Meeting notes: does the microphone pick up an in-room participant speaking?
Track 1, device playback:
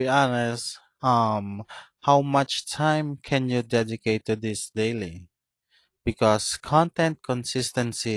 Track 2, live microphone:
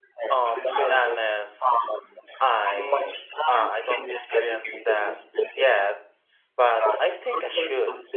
Yes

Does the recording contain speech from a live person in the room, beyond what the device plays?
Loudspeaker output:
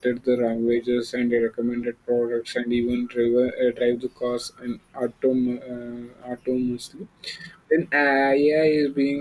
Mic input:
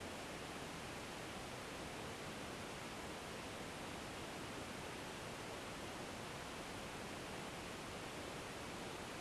No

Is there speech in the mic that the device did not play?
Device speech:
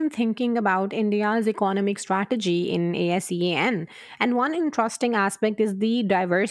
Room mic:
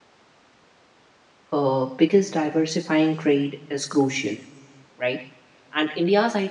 Yes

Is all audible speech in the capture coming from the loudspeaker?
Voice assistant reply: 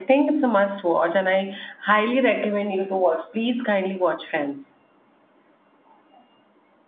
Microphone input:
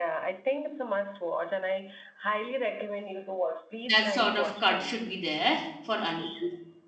No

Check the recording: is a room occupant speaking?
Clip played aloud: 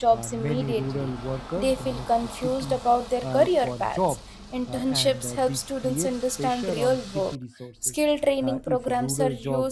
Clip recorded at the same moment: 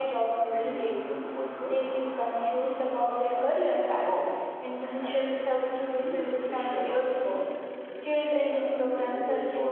No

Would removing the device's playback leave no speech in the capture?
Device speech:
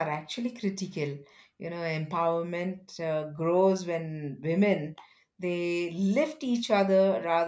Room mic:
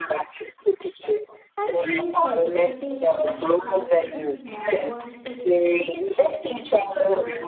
No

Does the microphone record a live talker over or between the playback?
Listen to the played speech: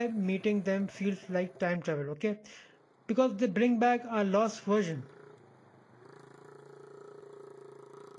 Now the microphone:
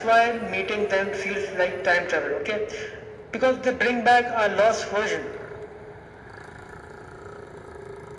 No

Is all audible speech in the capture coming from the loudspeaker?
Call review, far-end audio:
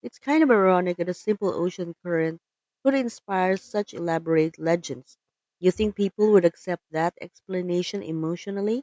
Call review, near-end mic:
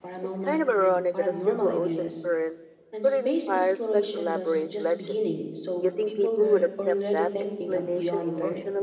No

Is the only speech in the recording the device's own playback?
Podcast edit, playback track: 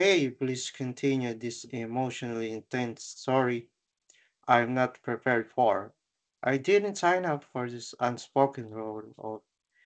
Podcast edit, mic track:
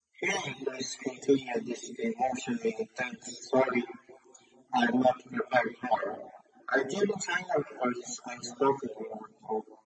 Yes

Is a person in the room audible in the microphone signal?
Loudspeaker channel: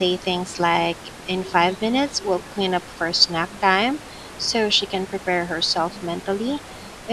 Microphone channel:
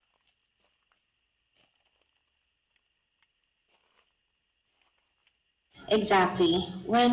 Yes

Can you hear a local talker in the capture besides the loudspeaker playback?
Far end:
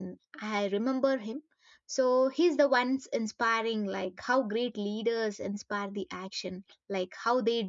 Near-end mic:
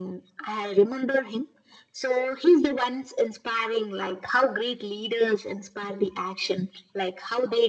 No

